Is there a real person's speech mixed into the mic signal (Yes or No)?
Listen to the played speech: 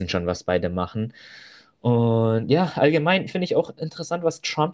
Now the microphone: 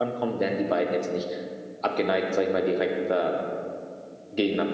Yes